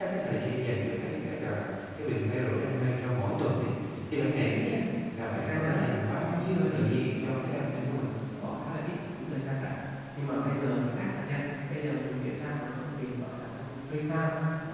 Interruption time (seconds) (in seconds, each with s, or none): 5.3 s